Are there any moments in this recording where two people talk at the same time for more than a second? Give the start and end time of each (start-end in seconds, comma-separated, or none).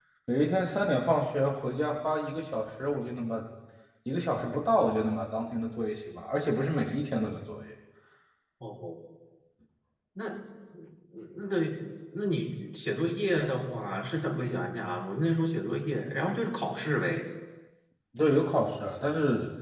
none